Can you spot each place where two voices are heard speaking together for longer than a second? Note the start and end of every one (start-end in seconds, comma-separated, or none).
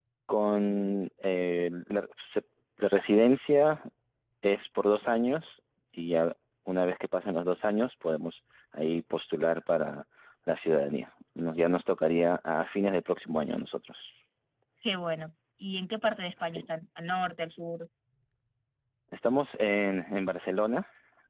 none